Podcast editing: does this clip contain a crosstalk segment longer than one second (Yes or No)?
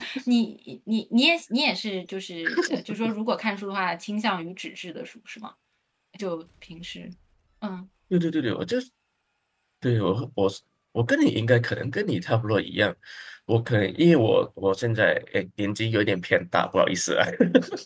No